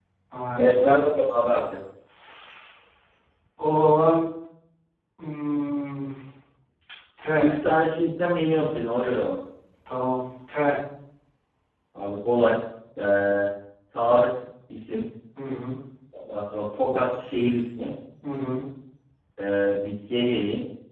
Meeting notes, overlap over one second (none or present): none